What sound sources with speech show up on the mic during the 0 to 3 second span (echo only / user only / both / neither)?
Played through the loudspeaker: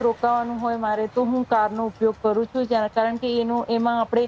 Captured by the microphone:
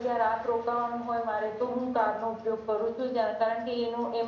echo only